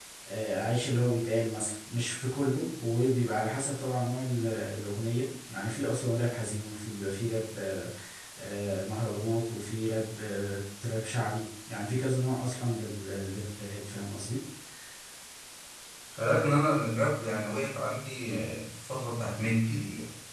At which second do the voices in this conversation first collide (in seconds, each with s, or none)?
none